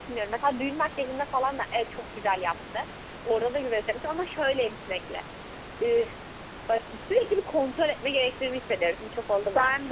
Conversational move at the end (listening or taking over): listening